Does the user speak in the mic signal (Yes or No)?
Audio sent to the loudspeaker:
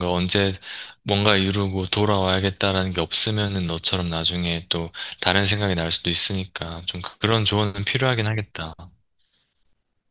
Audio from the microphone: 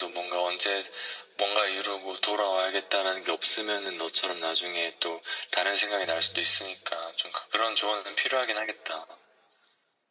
Yes